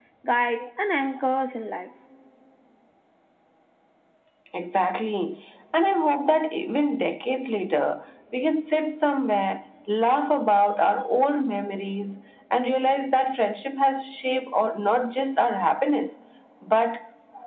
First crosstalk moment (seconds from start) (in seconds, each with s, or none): none